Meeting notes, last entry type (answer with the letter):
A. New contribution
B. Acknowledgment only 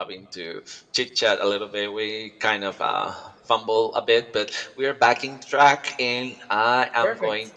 B